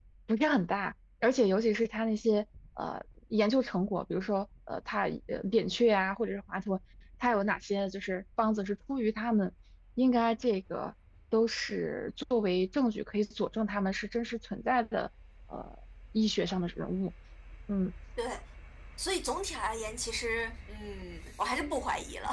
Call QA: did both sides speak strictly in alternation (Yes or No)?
Yes